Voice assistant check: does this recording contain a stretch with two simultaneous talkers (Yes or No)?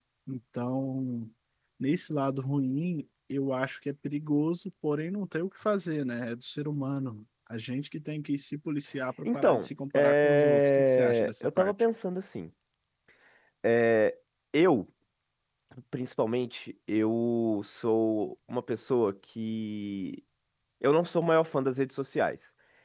Yes